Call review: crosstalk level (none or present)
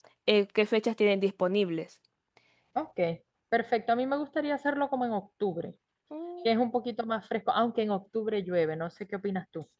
none